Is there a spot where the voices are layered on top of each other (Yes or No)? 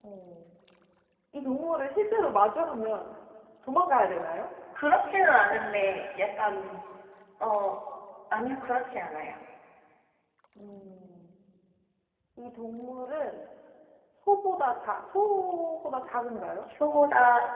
No